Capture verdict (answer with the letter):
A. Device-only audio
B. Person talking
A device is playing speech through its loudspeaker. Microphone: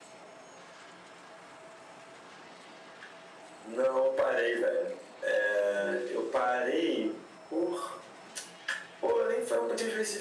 A